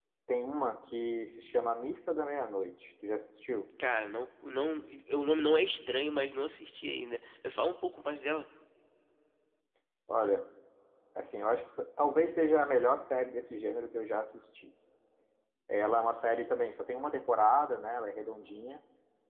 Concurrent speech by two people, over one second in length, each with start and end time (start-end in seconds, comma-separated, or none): none